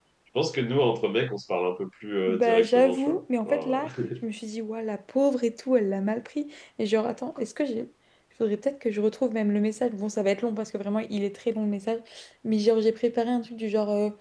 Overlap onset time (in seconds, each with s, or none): 2.3 s